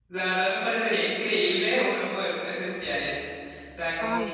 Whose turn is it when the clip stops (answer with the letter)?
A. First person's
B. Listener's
A